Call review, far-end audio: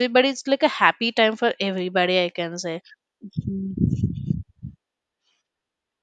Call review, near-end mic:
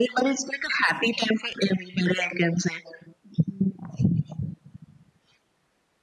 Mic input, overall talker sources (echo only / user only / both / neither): echo only